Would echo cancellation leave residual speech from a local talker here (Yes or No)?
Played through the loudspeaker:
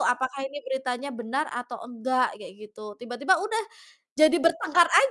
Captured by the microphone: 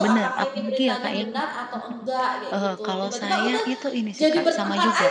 Yes